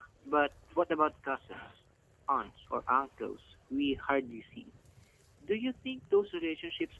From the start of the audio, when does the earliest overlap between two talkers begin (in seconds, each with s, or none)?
none